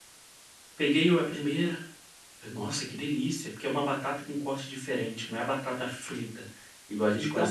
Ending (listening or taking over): taking over